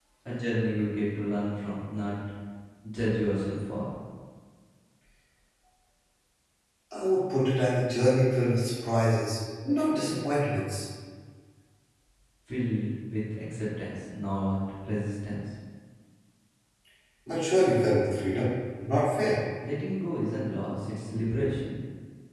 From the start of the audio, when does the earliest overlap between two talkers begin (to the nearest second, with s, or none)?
none